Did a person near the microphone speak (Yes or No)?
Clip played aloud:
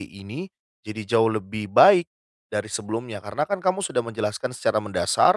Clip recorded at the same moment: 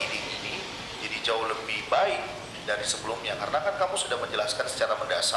No